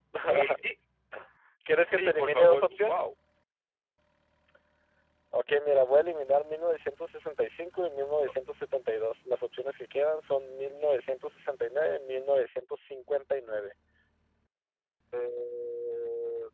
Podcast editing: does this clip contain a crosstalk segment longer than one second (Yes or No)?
Yes